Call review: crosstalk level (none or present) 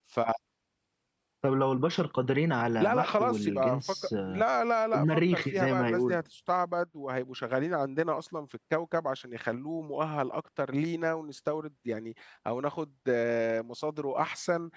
present